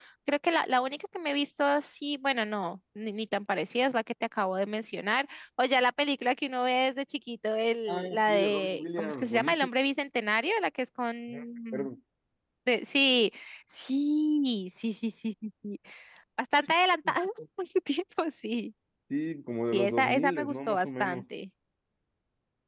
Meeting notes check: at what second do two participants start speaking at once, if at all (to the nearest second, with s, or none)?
8 s